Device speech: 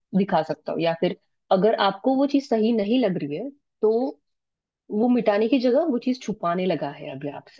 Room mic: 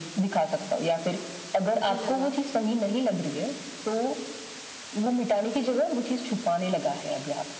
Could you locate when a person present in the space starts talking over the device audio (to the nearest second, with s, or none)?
2 s